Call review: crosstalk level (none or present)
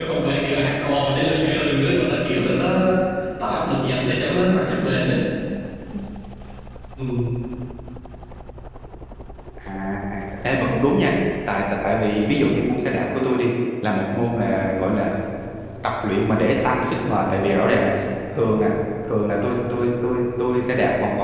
none